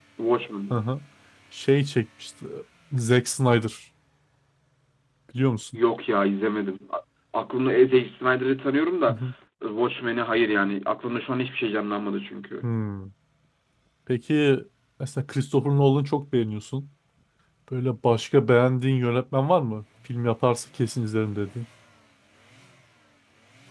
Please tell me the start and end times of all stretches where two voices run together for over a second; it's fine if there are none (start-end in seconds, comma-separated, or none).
none